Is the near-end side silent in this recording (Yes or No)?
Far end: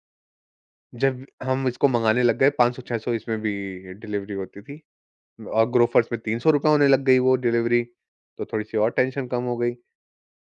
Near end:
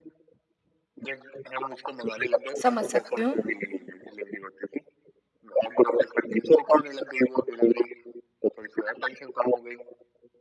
No